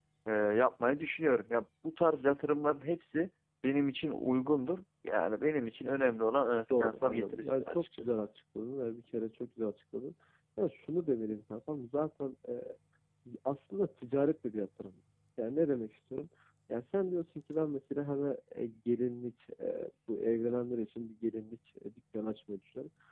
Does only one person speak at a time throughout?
No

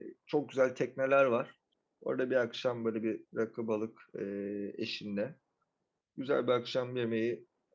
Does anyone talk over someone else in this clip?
No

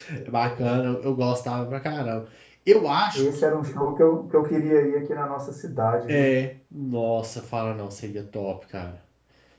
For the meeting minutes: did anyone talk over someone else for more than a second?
No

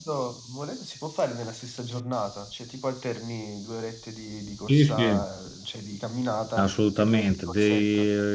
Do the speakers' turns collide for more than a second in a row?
Yes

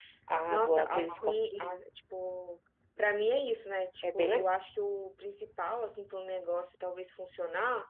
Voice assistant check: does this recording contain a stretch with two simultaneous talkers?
Yes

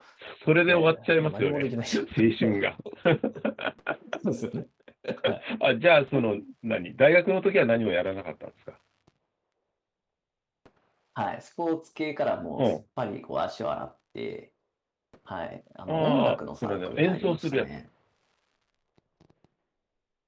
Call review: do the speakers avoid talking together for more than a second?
No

